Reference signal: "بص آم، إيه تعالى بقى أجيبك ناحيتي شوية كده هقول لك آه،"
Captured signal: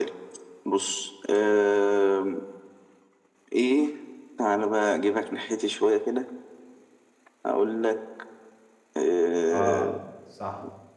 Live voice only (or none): اه صح